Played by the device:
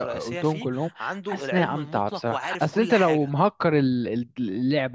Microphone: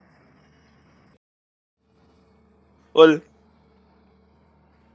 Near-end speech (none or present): present